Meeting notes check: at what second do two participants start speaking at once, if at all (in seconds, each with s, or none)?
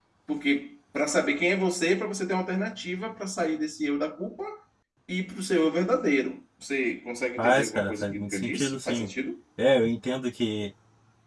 7.4 s